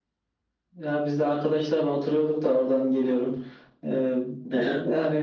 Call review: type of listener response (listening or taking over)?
listening